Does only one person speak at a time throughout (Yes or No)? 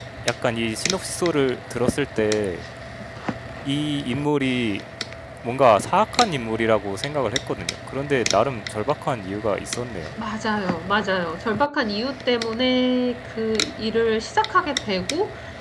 Yes